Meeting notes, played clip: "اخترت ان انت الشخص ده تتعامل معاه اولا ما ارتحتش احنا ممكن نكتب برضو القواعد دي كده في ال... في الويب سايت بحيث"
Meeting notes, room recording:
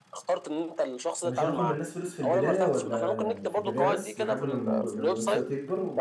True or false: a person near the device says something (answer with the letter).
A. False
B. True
B